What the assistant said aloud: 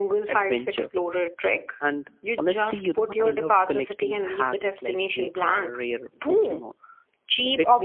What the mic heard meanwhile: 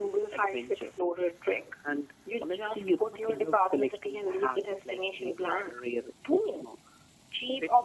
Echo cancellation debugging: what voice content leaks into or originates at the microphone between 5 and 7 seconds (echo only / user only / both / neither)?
echo only